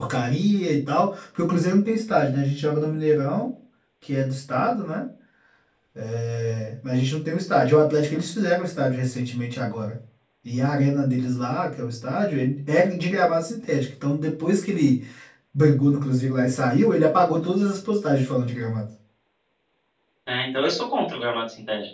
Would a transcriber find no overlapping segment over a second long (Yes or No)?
Yes